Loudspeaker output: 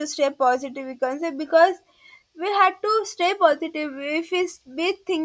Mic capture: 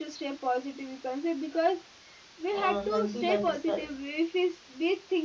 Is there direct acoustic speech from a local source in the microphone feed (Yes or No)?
Yes